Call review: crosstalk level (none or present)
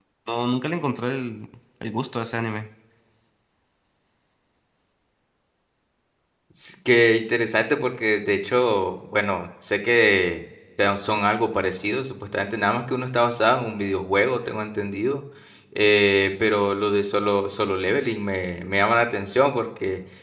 none